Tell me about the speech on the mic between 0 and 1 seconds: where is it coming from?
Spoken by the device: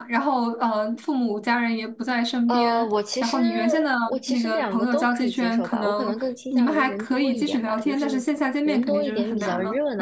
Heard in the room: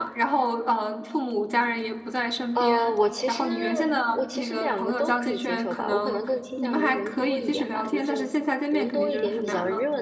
echo only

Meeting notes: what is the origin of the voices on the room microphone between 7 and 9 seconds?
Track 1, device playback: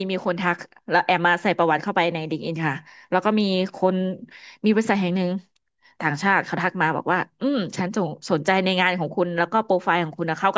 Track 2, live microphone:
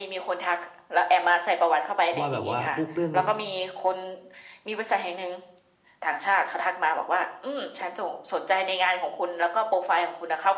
echo only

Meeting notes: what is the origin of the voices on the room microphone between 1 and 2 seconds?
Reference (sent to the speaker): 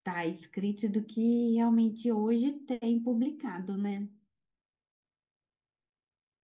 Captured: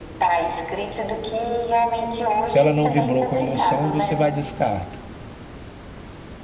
echo only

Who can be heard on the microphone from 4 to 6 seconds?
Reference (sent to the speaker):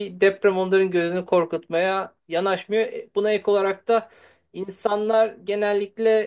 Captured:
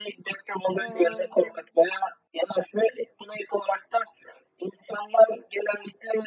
echo only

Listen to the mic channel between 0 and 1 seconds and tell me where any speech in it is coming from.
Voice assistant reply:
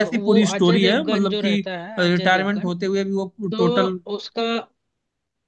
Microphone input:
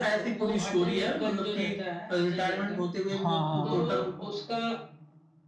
echo only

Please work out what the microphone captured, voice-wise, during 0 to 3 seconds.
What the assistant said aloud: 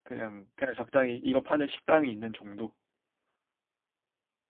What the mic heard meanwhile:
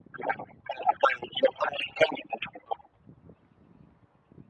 echo only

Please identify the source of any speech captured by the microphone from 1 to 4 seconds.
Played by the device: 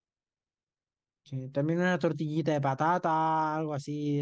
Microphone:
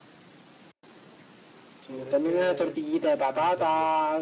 both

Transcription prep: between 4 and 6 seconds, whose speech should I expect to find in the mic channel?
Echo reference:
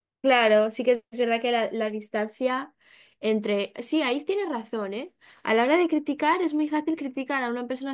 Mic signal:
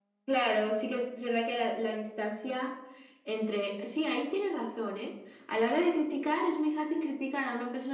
echo only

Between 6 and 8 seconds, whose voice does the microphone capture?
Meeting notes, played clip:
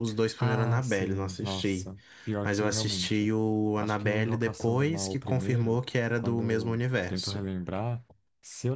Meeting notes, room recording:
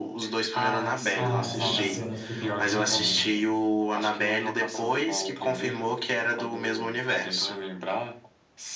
echo only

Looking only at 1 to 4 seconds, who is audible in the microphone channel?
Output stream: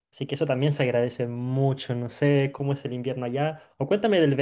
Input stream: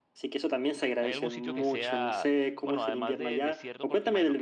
both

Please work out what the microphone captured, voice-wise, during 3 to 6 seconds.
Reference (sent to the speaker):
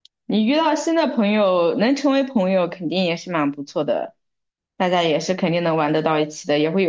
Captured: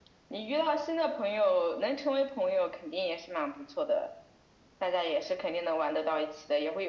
echo only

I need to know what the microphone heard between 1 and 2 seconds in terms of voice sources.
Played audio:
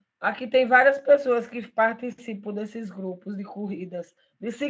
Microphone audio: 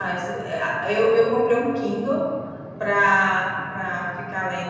user only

